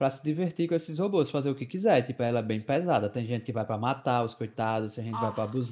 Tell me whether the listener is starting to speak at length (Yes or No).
No